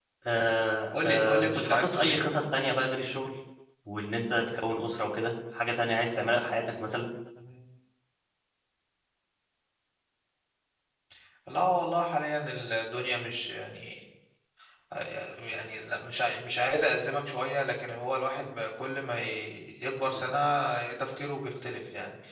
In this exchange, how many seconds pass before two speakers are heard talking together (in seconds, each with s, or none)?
0.9 s